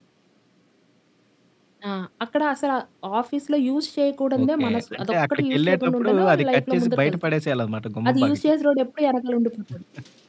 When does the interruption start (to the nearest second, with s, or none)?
4 s